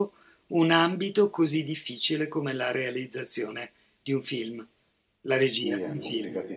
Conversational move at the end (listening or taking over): taking over